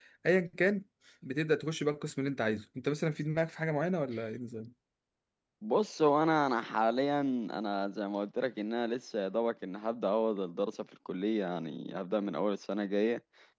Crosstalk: none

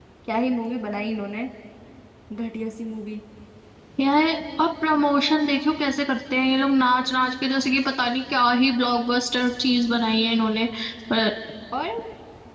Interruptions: none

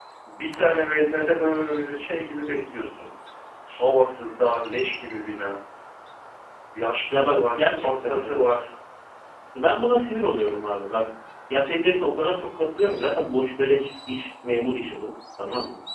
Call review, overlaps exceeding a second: present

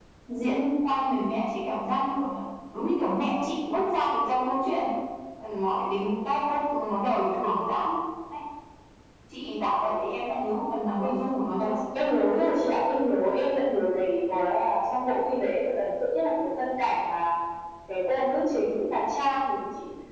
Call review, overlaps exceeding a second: none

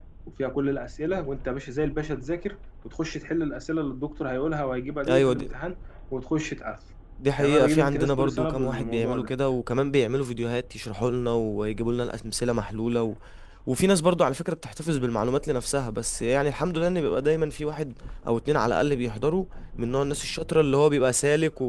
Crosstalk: present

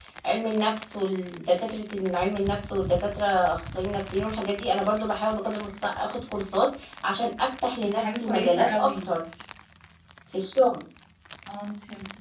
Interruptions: present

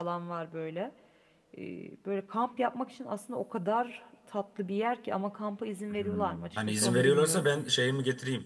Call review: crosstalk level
present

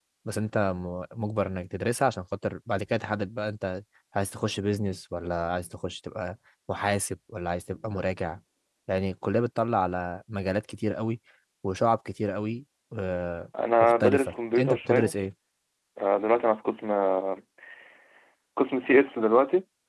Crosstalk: present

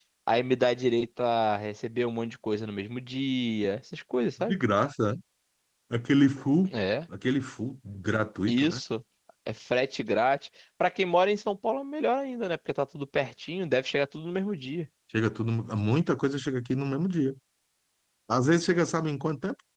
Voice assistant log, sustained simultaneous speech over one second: none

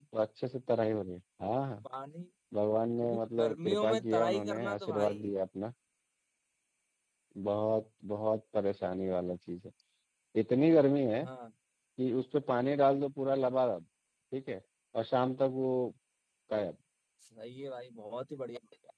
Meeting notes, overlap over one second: present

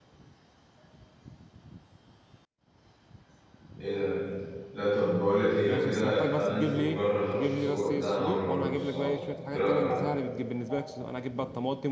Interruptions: present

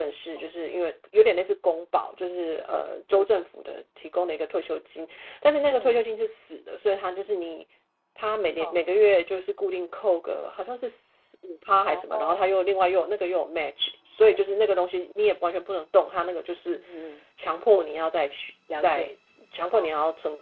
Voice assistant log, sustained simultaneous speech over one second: none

